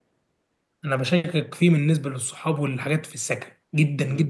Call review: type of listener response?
listening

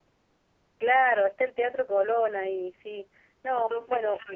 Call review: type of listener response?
taking over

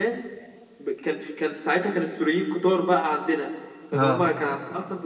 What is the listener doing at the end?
listening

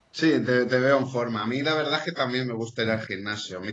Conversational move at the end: listening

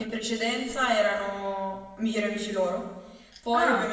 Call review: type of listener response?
listening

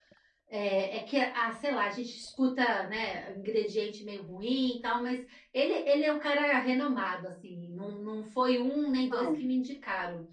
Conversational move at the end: listening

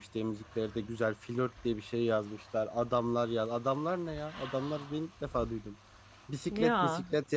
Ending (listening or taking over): listening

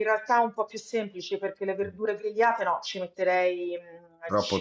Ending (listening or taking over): listening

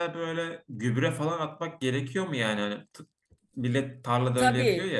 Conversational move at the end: taking over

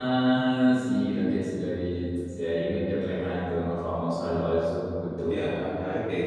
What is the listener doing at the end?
taking over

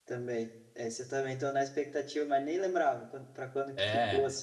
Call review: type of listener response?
taking over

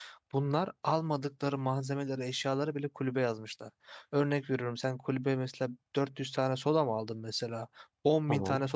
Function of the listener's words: listening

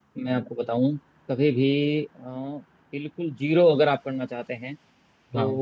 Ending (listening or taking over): listening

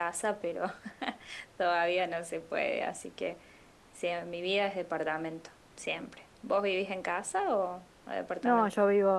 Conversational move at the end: taking over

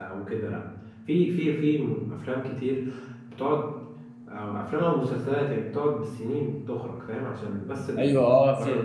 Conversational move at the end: taking over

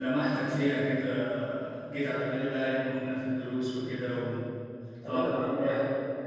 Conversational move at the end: taking over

